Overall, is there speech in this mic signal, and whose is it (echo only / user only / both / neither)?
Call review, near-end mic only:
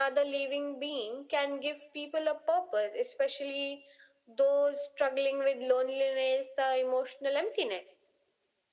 echo only